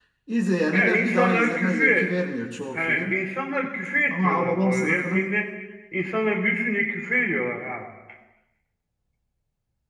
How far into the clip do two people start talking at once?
0.7 s

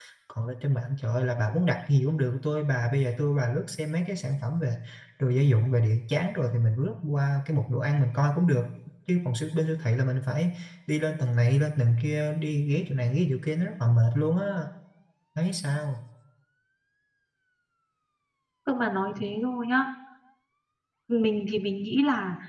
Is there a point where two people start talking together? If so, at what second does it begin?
none

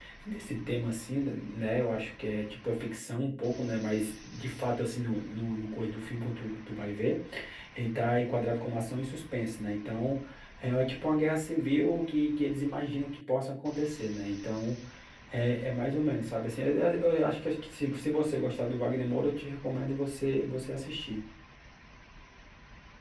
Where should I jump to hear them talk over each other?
none

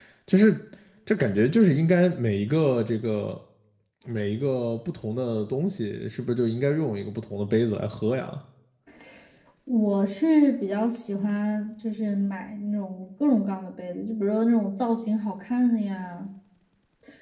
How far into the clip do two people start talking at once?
none

